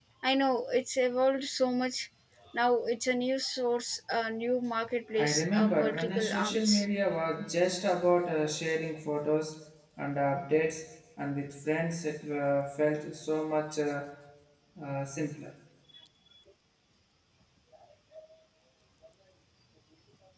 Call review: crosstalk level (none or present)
present